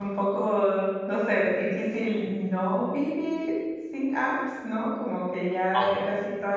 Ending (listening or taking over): listening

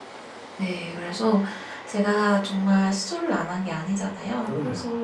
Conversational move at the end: listening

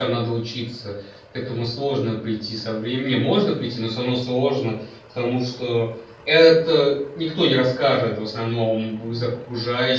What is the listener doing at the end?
listening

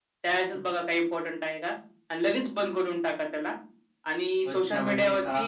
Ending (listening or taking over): taking over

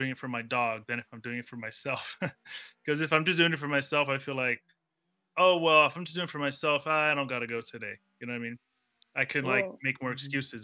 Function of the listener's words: listening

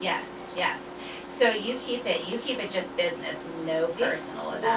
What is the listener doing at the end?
taking over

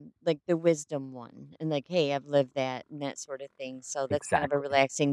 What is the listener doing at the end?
listening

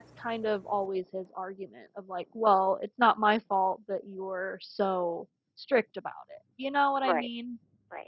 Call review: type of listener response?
taking over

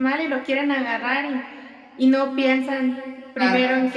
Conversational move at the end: listening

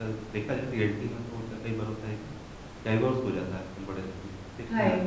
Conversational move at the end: listening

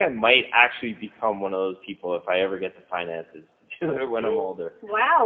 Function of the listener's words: taking over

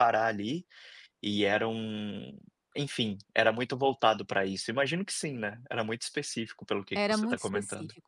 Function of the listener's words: taking over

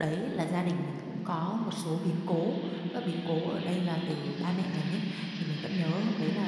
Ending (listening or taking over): listening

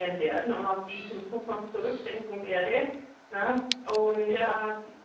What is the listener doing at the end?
listening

